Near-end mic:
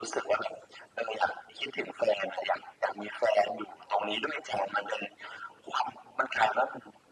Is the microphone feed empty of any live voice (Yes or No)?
Yes